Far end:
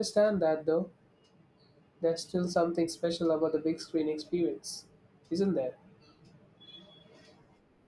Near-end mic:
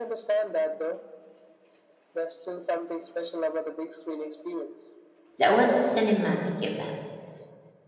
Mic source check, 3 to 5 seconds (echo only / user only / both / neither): echo only